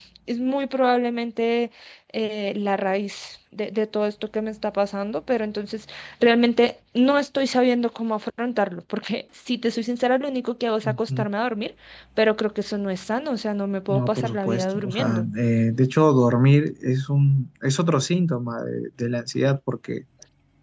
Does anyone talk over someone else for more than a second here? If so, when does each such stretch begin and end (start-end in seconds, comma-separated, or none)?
13.9-15.2